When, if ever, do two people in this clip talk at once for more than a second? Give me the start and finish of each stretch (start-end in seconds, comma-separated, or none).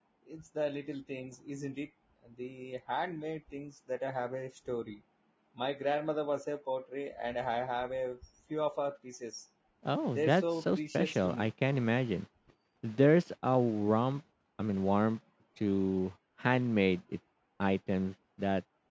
10.1-11.5